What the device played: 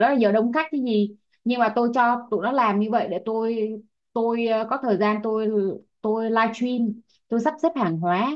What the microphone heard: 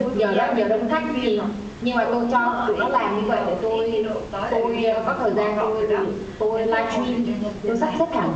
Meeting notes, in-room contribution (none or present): present